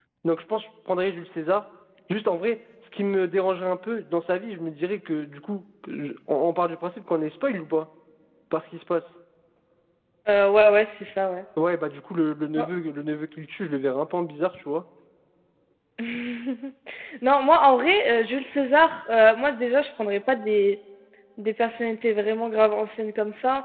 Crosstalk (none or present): none